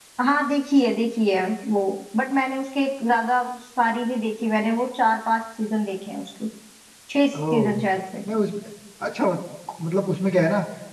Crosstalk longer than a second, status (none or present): none